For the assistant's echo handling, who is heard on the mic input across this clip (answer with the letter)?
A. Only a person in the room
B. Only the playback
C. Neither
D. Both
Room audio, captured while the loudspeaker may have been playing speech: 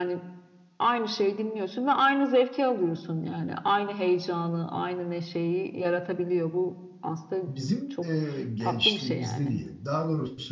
D